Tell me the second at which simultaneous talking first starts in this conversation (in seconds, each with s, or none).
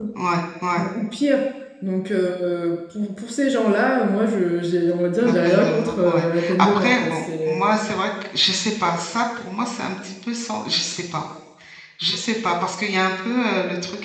5.2 s